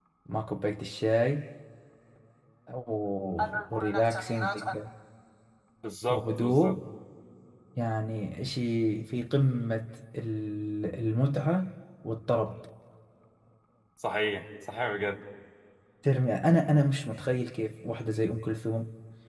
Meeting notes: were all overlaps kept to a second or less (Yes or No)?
No